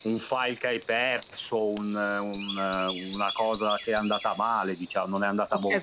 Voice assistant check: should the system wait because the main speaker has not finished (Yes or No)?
No